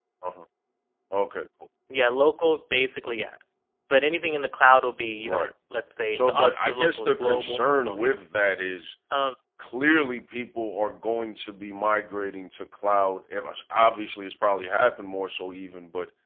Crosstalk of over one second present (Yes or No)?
Yes